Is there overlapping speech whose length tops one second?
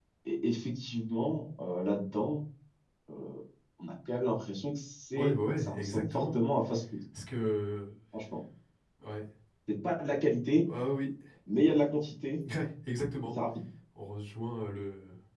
Yes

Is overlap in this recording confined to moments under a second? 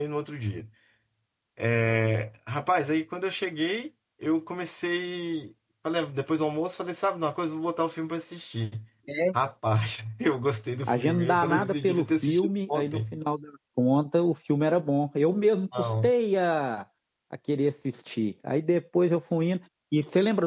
No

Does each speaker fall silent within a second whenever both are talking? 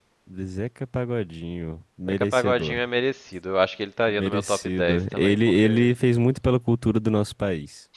No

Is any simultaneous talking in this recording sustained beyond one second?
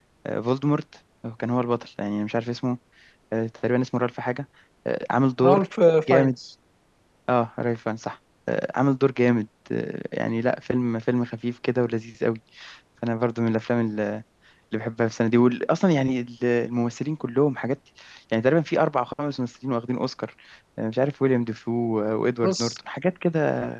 No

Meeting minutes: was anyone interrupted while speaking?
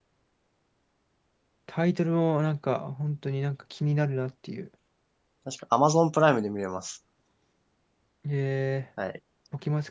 No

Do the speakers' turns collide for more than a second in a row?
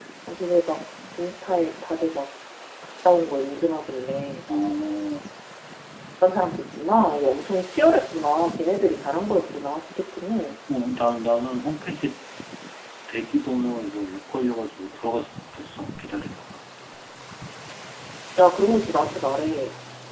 No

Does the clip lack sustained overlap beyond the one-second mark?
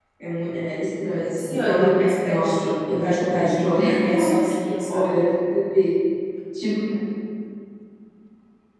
No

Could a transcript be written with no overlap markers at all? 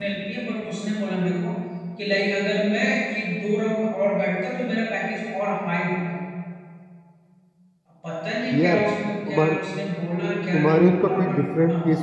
No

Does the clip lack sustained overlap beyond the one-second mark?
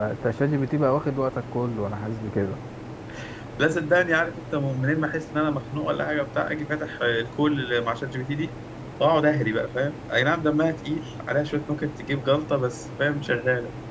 Yes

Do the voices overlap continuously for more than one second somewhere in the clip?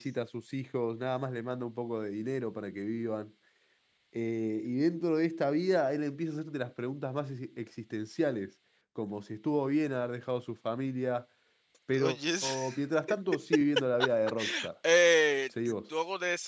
No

